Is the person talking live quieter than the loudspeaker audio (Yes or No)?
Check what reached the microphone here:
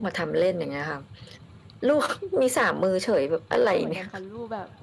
Yes